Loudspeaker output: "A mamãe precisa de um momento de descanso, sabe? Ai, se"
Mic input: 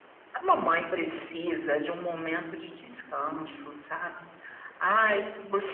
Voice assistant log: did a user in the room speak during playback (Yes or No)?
Yes